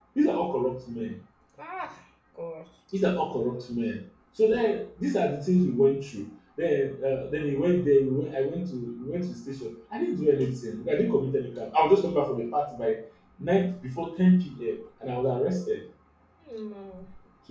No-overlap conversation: Yes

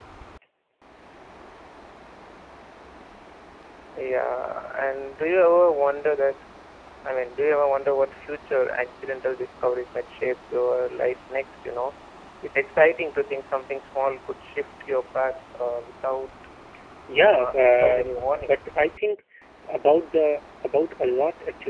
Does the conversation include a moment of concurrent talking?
Yes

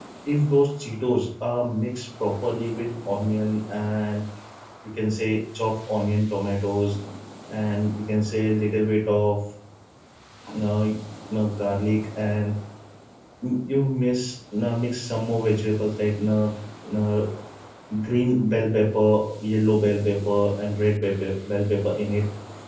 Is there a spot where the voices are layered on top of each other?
No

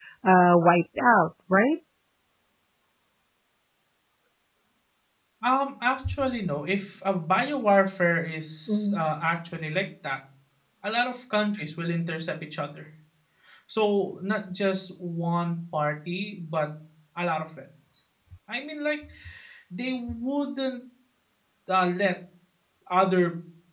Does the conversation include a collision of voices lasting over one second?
No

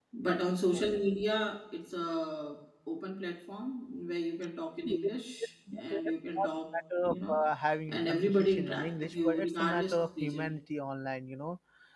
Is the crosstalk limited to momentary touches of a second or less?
No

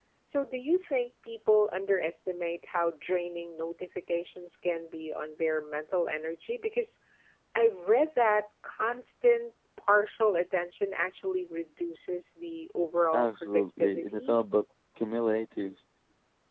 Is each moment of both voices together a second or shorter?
No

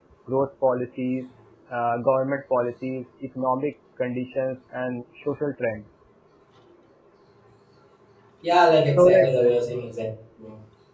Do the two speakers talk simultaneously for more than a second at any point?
No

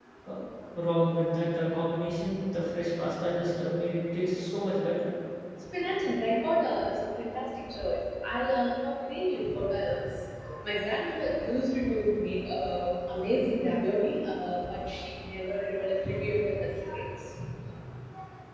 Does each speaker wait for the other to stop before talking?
Yes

